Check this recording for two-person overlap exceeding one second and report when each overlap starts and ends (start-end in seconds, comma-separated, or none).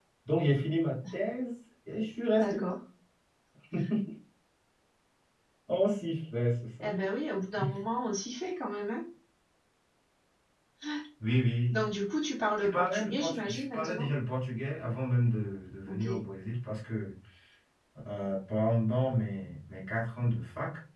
12.7-14.1